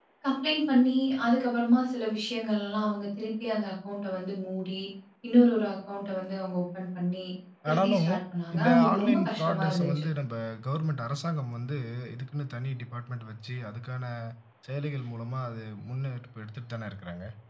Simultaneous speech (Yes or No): Yes